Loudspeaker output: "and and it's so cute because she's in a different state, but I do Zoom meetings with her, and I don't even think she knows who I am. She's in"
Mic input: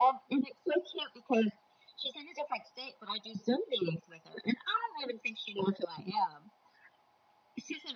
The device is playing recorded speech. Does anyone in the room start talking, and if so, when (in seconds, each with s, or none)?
none